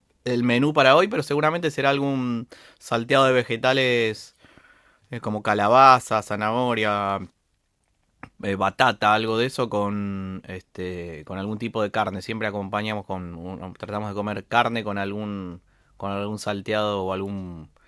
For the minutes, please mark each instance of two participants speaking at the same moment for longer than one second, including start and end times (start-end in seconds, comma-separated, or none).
none